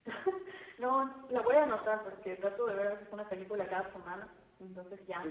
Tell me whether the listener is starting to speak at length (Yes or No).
Yes